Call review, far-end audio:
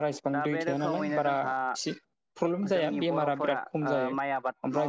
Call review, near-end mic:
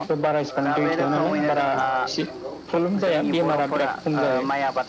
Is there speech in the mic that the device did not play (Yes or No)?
Yes